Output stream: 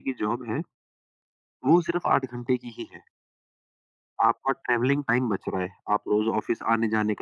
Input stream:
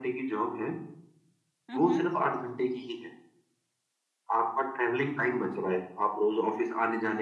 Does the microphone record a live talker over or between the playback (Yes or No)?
Yes